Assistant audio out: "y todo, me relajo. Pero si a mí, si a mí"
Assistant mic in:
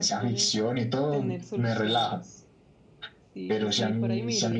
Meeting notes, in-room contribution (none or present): present